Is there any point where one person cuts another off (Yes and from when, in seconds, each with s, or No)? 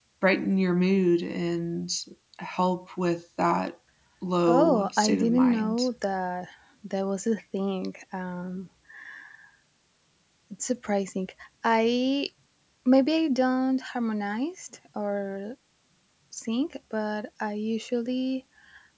Yes, from 4.5 s